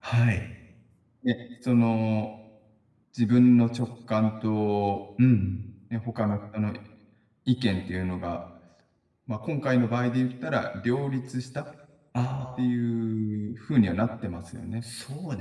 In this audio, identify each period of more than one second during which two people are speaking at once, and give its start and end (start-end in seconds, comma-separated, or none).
none